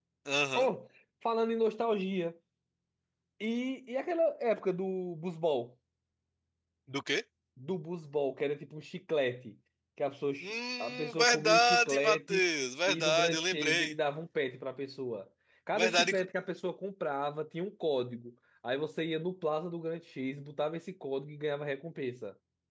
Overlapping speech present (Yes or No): Yes